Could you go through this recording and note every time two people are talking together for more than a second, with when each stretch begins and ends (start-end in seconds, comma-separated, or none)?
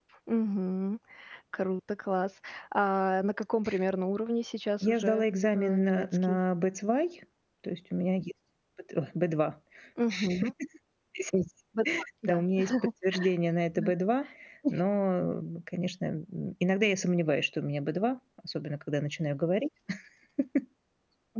4.8-6.4